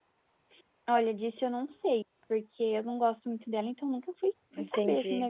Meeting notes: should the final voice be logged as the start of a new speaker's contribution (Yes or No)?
Yes